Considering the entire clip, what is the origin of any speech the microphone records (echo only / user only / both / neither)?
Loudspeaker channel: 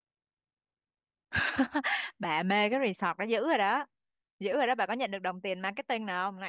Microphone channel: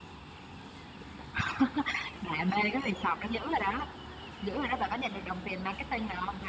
echo only